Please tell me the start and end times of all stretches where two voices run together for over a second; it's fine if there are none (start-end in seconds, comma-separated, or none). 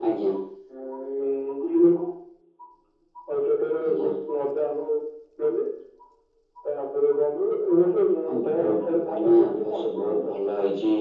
8.5-10.4